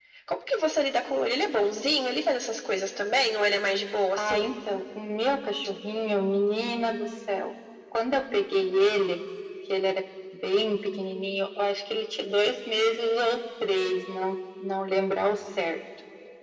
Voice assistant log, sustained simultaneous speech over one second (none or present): none